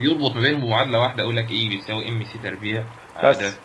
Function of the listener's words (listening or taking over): taking over